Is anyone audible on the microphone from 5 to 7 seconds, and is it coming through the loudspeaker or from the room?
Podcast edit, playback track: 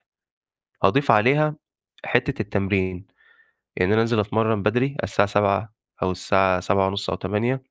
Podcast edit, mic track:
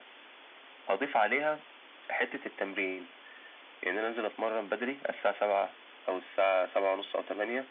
echo only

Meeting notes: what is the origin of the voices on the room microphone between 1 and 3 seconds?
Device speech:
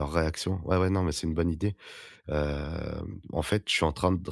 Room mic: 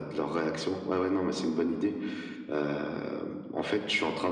echo only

